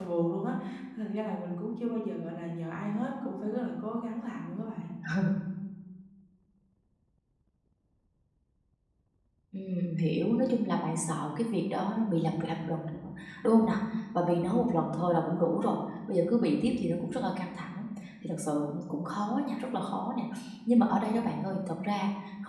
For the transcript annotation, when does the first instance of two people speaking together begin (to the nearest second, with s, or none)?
none